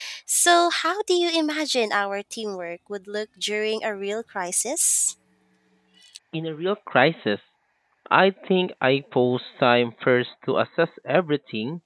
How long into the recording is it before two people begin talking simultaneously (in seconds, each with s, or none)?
none